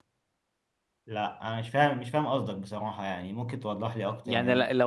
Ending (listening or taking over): taking over